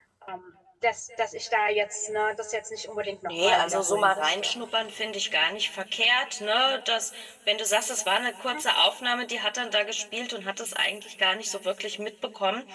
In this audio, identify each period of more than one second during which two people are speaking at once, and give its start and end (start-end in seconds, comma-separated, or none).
3.3-4.5